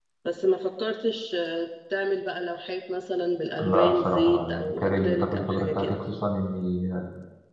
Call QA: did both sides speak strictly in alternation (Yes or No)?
No